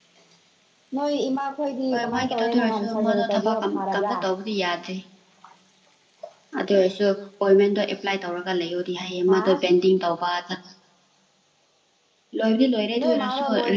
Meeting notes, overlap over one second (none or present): present